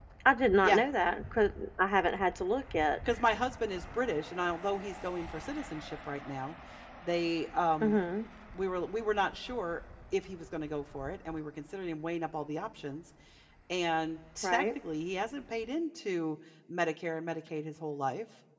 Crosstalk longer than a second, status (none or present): none